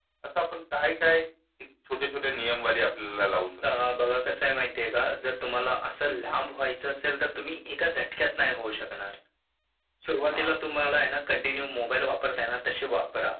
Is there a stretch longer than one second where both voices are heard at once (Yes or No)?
No